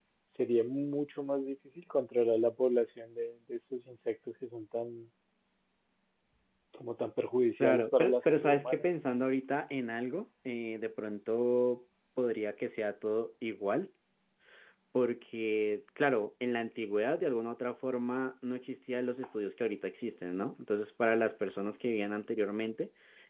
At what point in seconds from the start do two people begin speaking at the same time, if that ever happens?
7.6 s

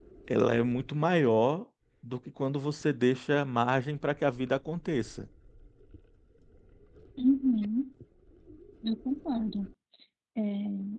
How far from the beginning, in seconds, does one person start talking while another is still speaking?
none

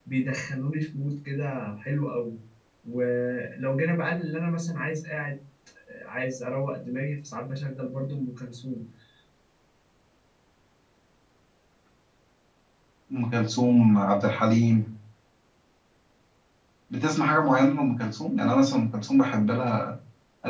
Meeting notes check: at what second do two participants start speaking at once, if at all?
none

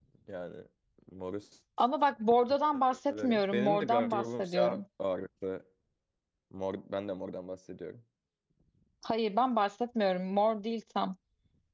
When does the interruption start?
3.1 s

